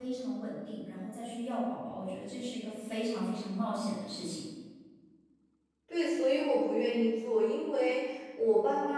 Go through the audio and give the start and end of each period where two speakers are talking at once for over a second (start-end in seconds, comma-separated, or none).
none